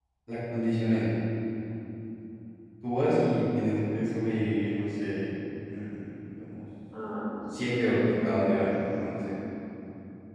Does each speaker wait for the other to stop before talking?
No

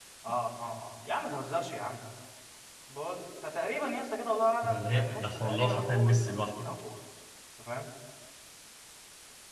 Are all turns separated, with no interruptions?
No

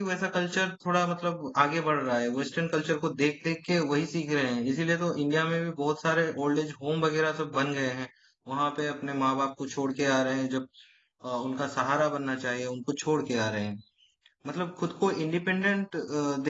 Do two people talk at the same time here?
No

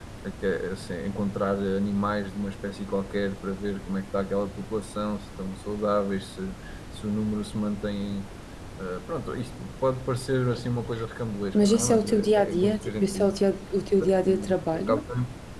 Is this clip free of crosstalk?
No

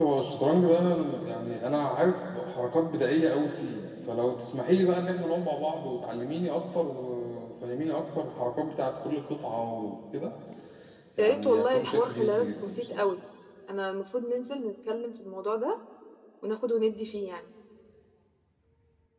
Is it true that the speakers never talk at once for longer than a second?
No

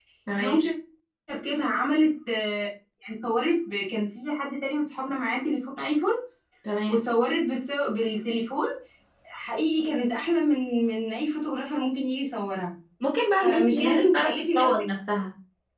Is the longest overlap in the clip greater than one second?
Yes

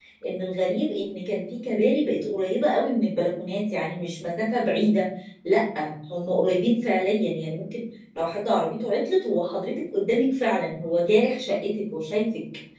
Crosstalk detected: No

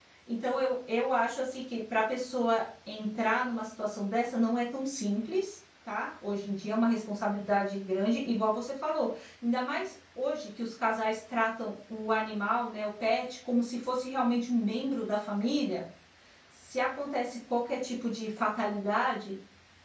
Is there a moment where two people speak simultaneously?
No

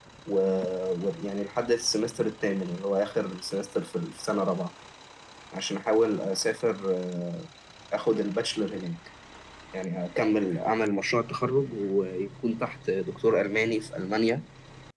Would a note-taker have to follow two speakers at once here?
No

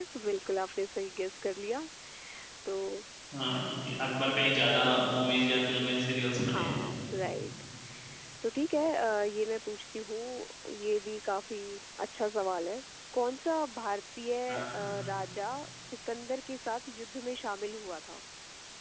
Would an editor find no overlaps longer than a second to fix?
Yes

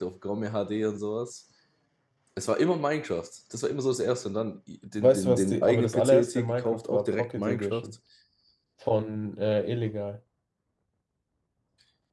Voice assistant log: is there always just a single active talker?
No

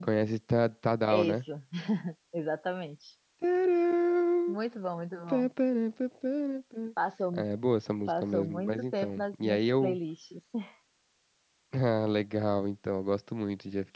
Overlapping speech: Yes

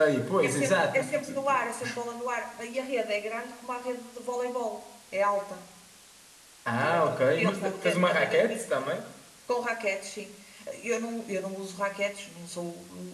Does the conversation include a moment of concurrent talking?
Yes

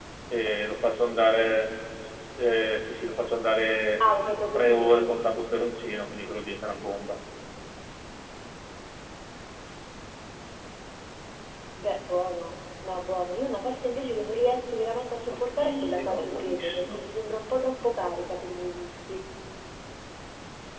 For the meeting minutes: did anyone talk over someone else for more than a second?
Yes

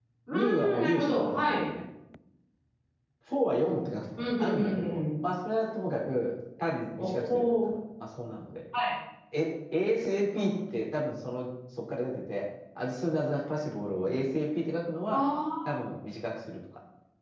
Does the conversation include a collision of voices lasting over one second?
Yes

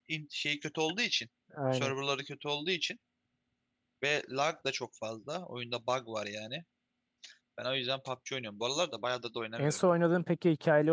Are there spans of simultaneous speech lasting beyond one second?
No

